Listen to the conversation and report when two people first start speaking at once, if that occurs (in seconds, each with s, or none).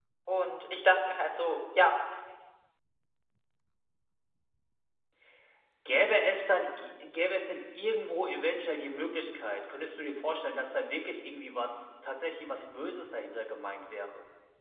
none